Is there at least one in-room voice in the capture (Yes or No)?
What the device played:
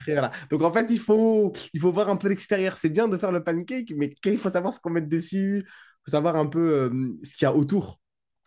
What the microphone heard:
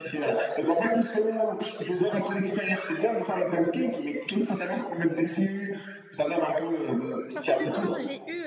Yes